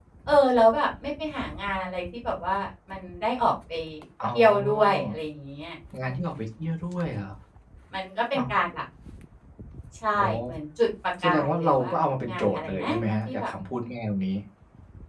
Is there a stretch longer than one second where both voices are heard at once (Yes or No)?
Yes